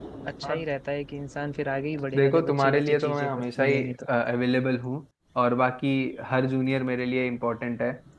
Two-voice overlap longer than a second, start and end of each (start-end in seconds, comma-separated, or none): 2.1-4.1